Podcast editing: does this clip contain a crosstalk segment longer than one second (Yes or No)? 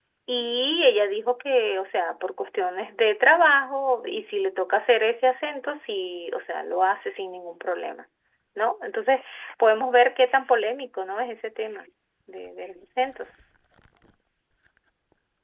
No